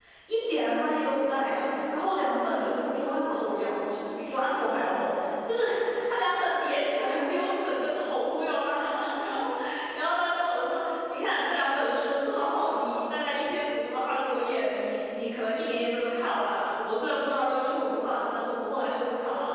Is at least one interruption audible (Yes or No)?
No